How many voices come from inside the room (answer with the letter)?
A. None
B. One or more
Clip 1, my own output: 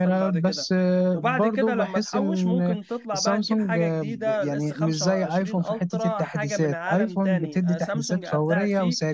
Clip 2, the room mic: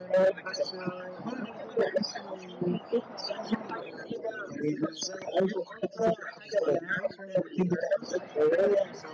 A